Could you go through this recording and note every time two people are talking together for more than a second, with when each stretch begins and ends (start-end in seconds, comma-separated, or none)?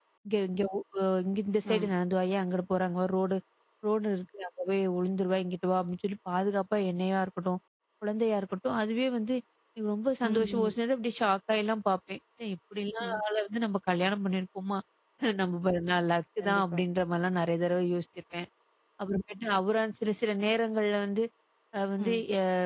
none